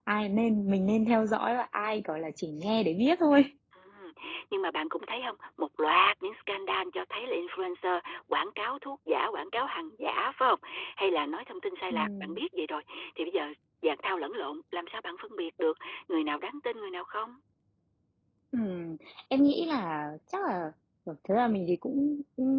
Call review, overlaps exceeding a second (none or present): none